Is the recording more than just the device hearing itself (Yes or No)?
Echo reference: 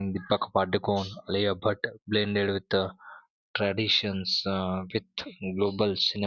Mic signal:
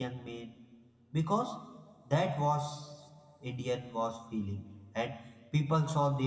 Yes